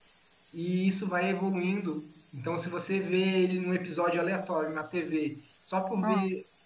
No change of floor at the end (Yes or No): Yes